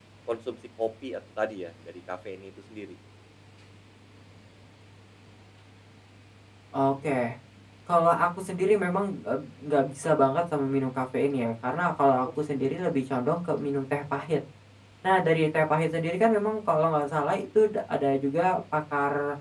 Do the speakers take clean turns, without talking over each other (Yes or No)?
Yes